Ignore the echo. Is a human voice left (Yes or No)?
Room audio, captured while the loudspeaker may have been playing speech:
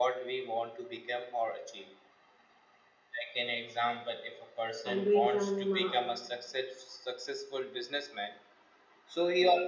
Yes